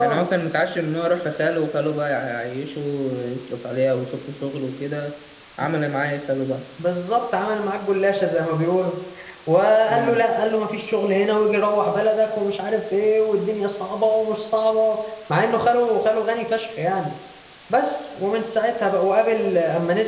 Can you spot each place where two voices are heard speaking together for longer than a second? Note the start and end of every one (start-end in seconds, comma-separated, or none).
none